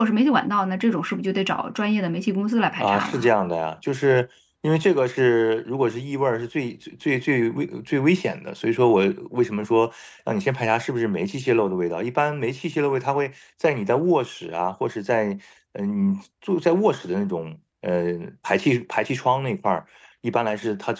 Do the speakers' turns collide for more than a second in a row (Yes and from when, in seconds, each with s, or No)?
No